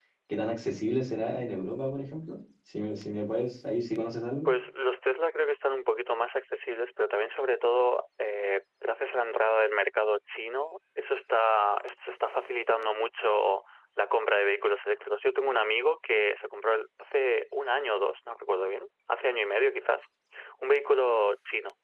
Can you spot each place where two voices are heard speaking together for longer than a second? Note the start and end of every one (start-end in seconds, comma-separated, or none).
none